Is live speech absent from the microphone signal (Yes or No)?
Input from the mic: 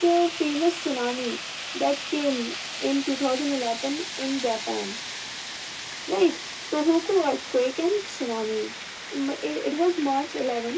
Yes